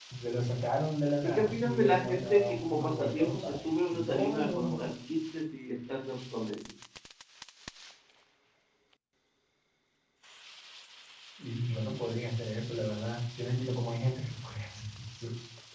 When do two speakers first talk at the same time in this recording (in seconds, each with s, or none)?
1.2 s